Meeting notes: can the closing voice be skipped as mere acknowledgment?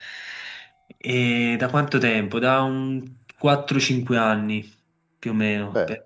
Yes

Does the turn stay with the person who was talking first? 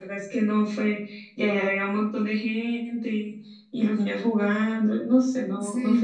No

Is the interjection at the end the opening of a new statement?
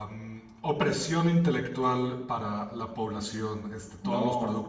No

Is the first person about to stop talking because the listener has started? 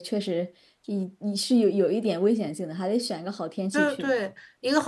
Yes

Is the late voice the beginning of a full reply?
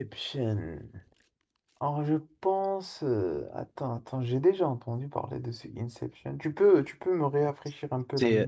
Yes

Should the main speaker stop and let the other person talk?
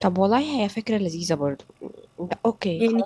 Yes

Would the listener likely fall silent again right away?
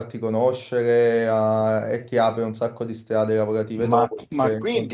No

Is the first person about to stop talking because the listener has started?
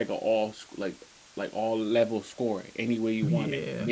No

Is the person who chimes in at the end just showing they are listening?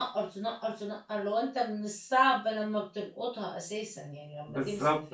No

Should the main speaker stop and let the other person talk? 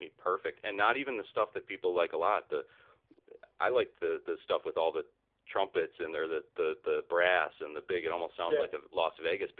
No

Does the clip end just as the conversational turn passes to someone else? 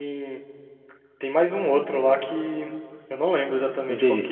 Yes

